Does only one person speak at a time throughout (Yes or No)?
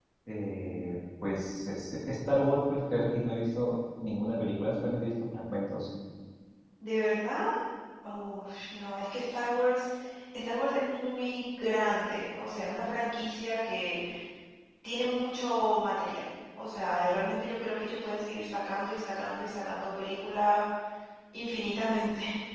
Yes